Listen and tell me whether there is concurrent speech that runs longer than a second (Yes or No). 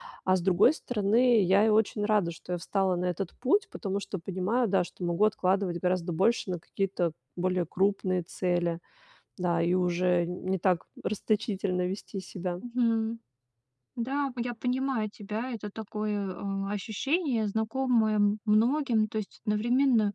No